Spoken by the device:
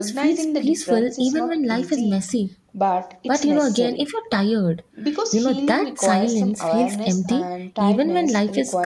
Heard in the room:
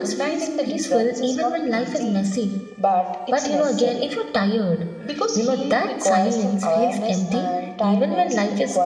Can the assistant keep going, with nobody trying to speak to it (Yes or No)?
Yes